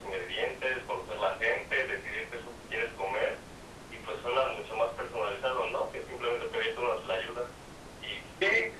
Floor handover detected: No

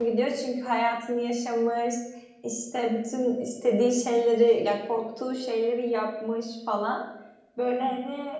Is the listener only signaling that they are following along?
Yes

